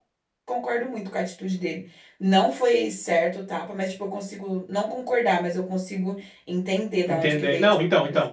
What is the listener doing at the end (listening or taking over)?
taking over